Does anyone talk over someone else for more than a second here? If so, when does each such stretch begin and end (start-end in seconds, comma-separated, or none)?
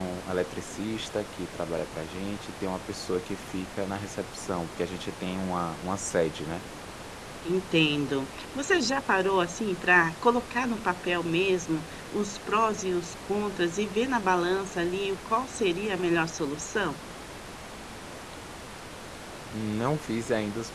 none